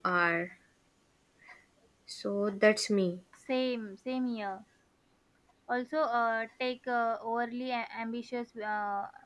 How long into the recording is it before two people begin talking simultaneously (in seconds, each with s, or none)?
none